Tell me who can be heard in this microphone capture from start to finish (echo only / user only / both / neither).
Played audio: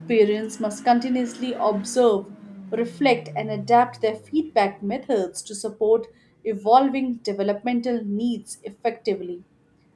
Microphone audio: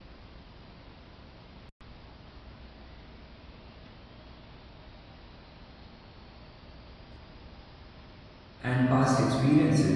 user only